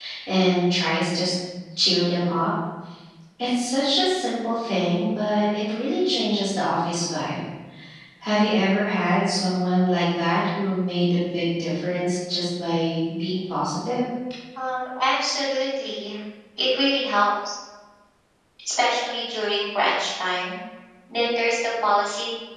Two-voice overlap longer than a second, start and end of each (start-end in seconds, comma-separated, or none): none